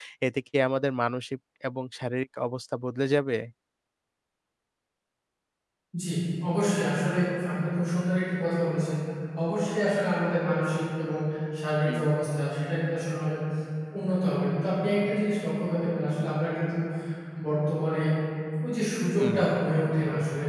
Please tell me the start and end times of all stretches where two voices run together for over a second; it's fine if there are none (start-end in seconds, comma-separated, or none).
none